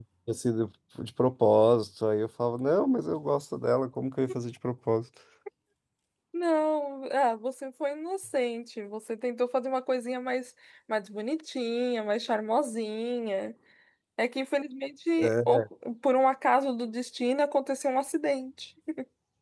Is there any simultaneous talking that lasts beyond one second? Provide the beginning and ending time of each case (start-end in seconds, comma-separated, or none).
none